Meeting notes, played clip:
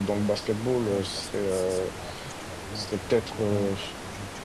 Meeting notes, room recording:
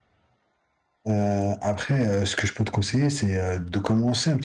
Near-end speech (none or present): present